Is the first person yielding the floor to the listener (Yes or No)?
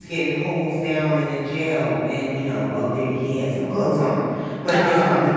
No